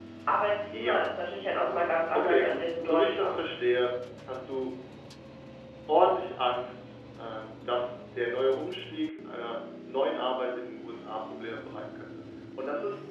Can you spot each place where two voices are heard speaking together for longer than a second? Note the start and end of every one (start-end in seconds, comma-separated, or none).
2.1-3.4